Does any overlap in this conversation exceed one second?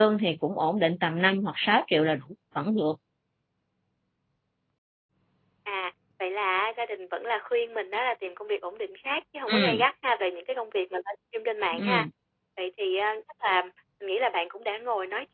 No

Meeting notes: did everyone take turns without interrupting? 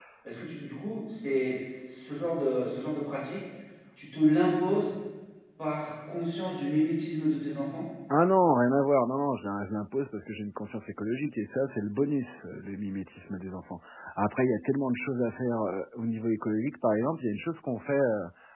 Yes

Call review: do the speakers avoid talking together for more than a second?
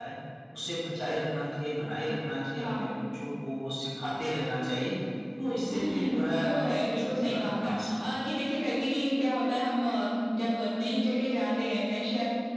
No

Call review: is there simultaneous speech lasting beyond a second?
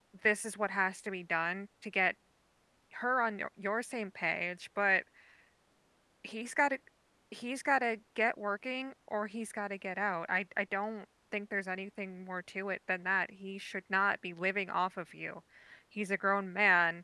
No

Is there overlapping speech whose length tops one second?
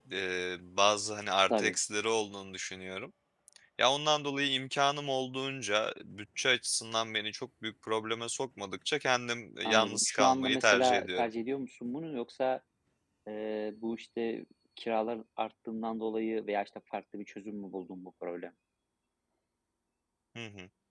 Yes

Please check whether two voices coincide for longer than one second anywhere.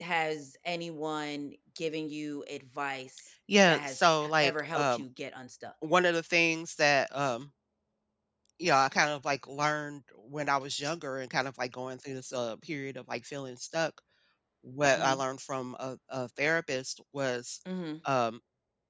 Yes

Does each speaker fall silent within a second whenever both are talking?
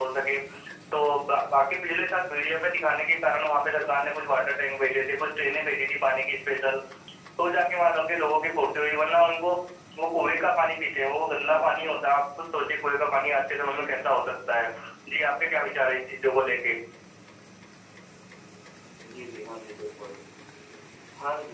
Yes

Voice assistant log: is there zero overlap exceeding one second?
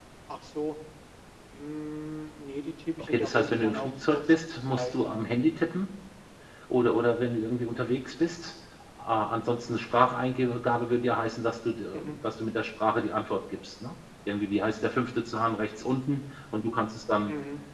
No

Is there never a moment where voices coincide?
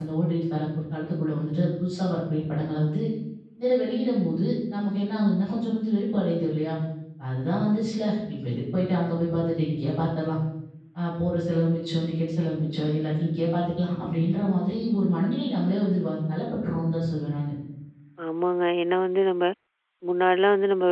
Yes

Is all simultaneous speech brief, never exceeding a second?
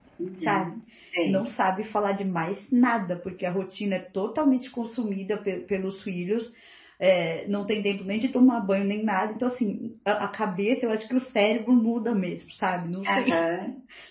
Yes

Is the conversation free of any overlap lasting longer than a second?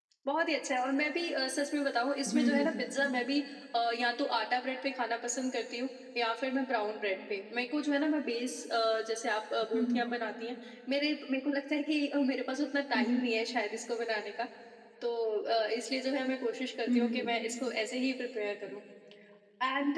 Yes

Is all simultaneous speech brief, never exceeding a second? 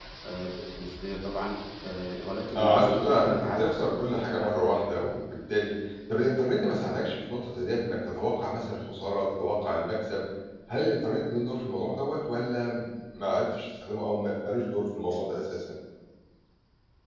No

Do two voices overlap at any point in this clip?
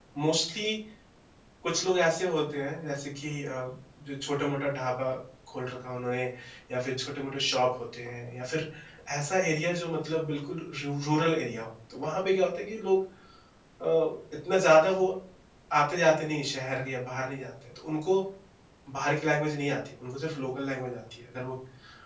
No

